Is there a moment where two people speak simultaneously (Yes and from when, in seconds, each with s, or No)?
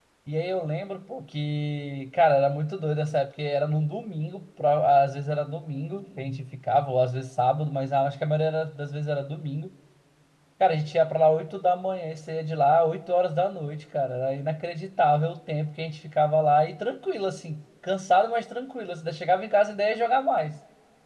No